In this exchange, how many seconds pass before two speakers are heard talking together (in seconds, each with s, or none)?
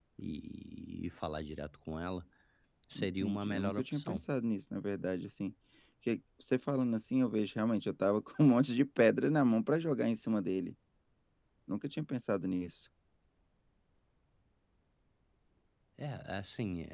3.0 s